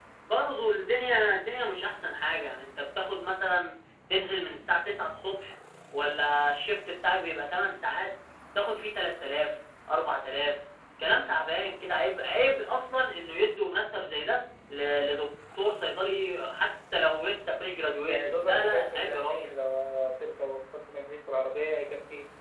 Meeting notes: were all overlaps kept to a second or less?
No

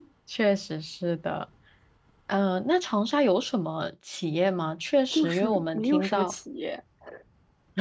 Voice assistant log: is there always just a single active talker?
No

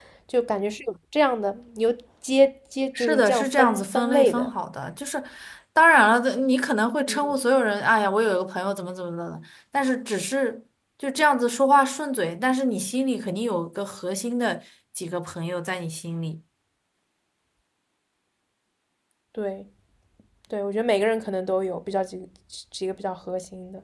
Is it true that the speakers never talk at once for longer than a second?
No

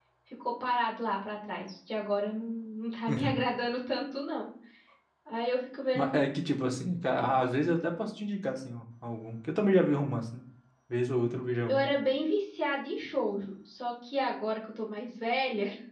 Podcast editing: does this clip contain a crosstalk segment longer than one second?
No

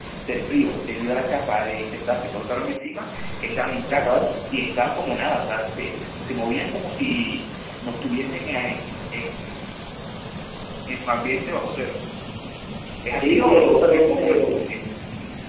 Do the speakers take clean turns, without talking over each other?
No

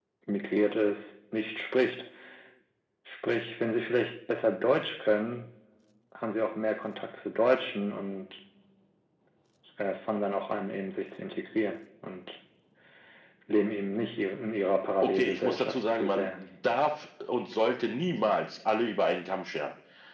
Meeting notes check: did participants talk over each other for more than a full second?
Yes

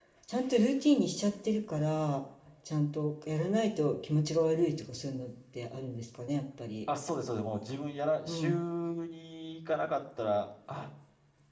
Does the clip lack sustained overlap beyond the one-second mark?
Yes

